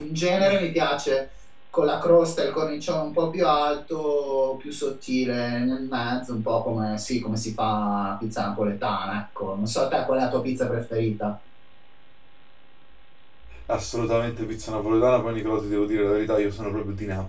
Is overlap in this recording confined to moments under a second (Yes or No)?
Yes